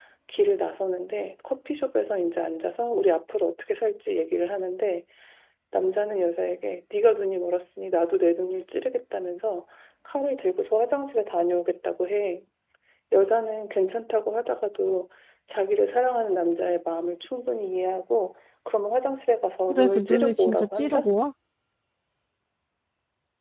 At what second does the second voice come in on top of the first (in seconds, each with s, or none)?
19.7 s